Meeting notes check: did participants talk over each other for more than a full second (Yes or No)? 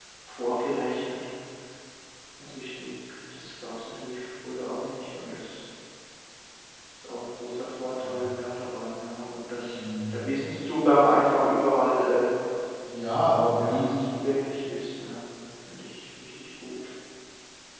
No